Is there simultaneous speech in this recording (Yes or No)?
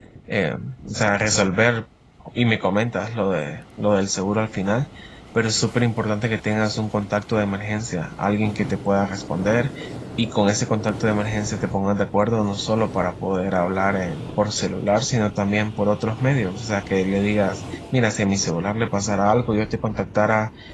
No